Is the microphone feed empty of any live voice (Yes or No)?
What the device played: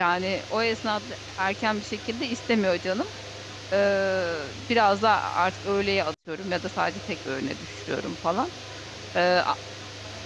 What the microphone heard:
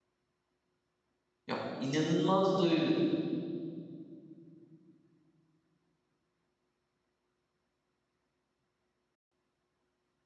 No